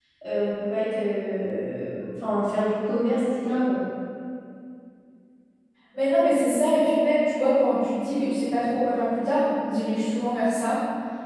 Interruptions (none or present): none